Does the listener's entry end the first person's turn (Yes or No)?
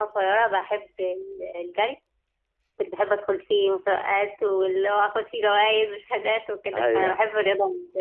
No